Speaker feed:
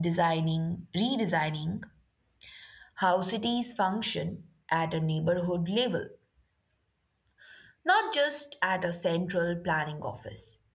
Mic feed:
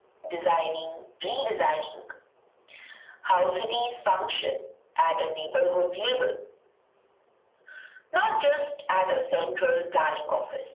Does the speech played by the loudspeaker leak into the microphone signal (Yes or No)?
Yes